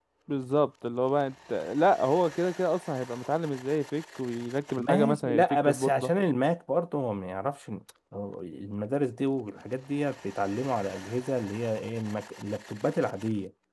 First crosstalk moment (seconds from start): 4.8 s

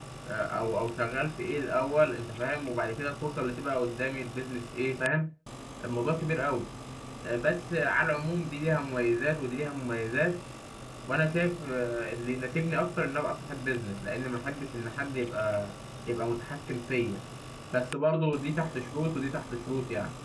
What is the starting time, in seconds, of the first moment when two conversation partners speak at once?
none

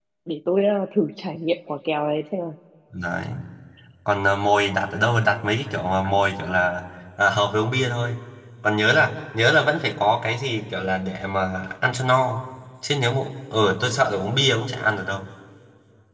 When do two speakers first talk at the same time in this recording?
none

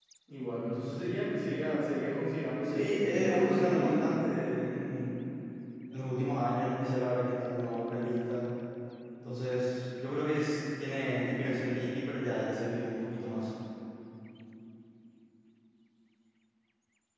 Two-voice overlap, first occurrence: 2.7 s

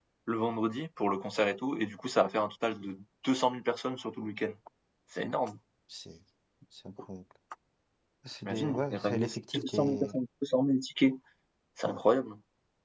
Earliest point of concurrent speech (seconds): 8.4 s

